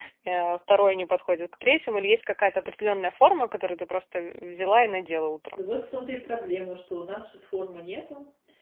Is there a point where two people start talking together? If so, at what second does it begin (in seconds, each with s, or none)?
none